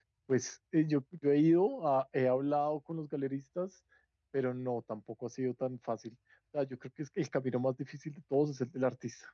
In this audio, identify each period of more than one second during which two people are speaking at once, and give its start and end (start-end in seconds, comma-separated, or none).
none